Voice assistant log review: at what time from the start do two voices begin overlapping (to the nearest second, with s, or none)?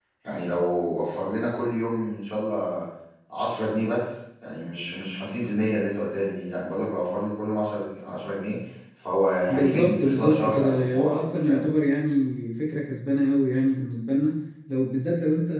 9 s